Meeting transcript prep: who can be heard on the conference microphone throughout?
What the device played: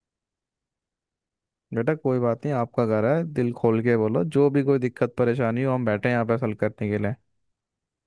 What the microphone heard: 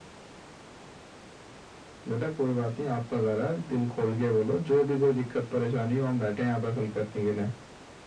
echo only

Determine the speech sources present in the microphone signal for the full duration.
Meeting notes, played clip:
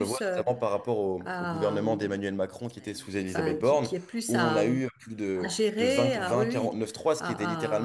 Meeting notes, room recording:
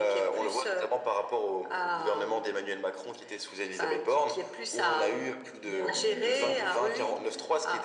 both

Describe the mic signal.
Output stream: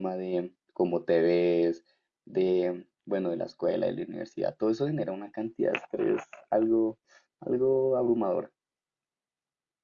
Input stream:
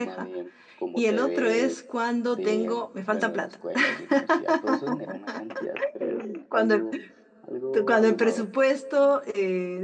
both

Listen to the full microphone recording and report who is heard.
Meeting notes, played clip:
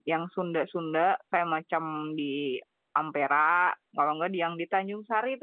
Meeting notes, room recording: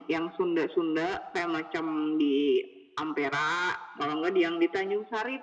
echo only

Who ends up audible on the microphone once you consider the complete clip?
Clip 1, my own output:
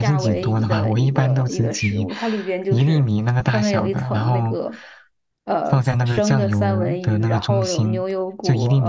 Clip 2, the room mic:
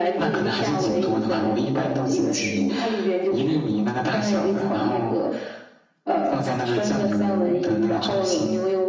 echo only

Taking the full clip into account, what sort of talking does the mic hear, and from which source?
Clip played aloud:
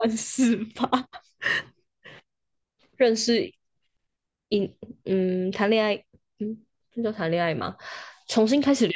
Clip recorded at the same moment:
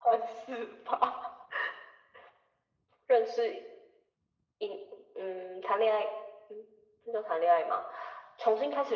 echo only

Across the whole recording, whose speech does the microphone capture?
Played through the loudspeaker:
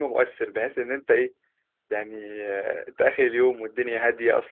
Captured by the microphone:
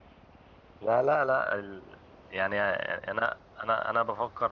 user only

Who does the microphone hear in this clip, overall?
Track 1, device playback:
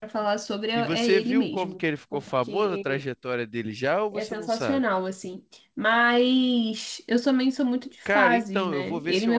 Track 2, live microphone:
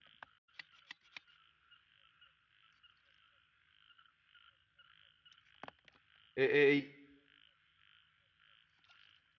user only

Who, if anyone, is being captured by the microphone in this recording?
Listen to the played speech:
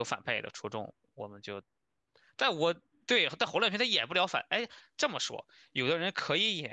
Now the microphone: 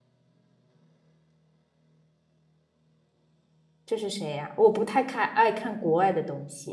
user only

